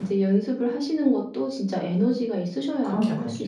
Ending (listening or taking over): taking over